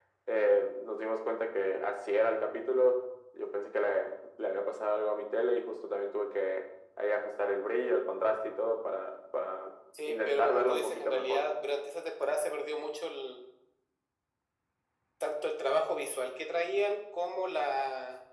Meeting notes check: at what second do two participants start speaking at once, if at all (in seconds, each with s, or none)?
9.9 s